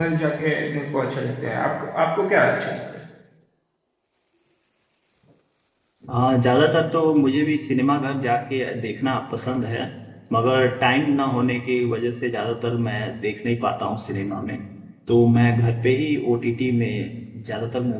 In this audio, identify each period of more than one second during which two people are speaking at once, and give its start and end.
none

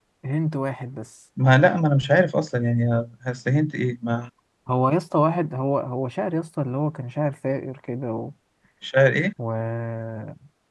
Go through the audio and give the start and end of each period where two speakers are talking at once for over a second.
none

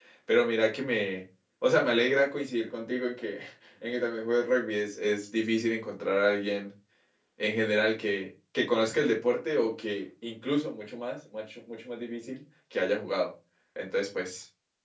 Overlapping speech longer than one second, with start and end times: none

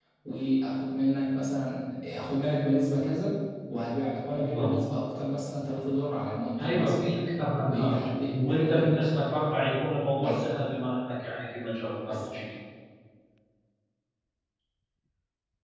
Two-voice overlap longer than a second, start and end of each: 7.6-9.0

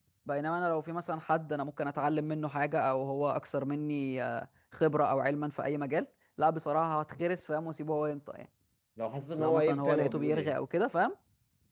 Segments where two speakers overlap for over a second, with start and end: 9.4-10.6

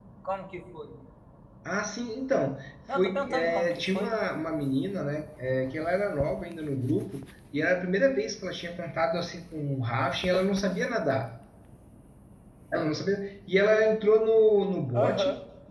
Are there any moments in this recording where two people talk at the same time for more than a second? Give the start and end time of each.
2.9-4.1

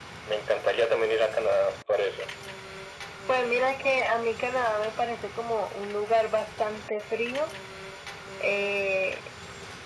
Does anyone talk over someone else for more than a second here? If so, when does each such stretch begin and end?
none

